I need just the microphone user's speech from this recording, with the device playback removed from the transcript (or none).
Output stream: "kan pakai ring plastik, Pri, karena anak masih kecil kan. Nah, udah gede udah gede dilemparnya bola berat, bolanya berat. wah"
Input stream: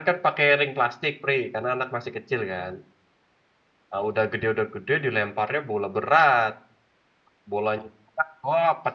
none